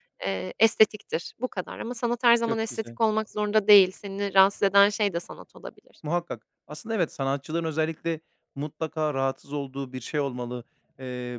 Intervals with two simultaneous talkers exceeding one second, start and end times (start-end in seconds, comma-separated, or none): none